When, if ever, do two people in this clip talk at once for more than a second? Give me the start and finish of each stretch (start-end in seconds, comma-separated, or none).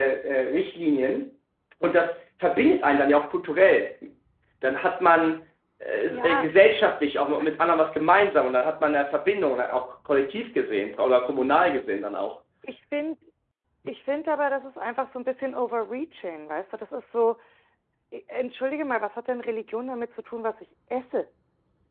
none